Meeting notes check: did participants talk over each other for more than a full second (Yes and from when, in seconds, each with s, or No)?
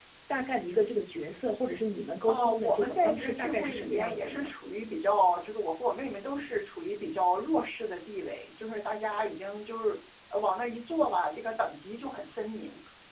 Yes, from 2.2 s